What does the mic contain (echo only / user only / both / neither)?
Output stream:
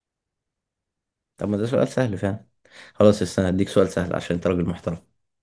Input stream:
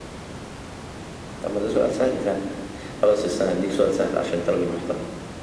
echo only